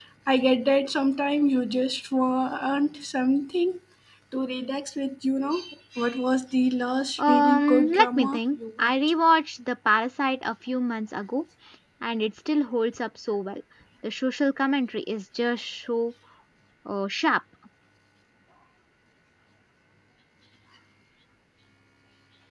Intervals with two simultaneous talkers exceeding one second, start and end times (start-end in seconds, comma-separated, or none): 7.2-8.9